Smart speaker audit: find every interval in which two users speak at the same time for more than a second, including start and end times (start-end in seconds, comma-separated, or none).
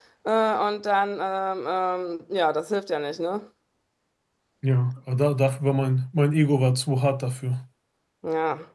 none